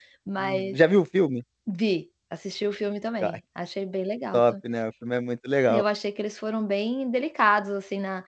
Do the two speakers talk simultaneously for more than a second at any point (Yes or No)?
No